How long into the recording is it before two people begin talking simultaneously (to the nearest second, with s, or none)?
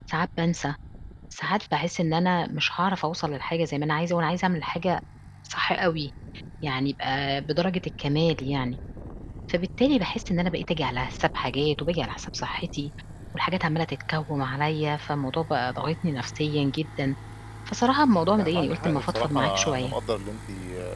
18 s